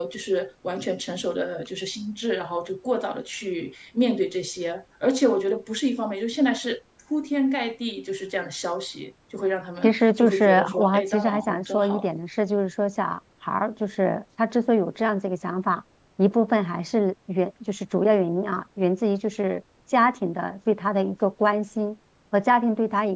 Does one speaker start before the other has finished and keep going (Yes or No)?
Yes